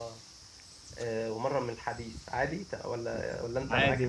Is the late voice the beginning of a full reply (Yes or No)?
Yes